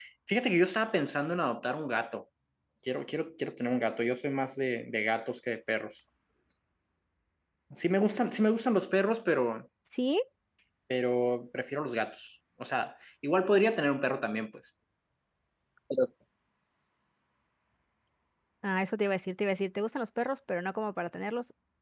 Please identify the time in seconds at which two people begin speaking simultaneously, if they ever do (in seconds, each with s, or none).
none